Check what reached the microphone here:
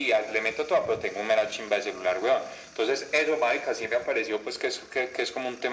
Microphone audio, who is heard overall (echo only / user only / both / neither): echo only